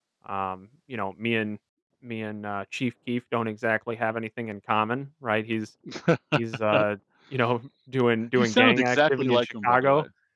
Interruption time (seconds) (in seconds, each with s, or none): 8.3 s